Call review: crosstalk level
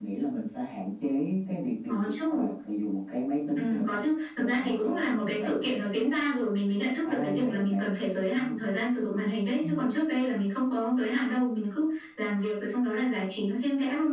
present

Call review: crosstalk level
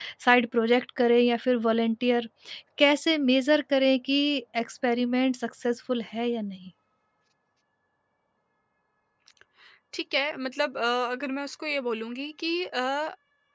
none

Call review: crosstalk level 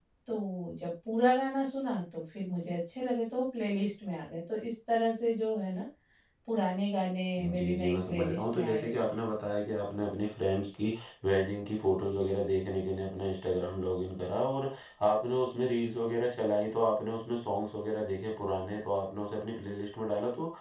present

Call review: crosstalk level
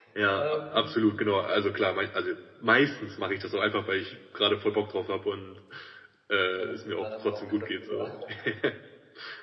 present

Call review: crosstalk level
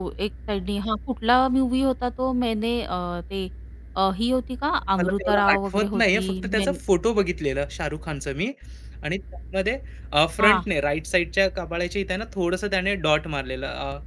present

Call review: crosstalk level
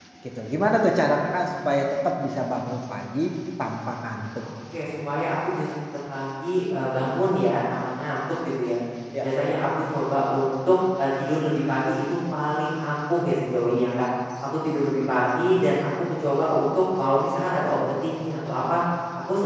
none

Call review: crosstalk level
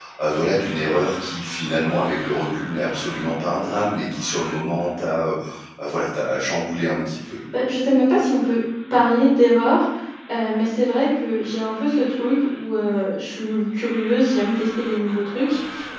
none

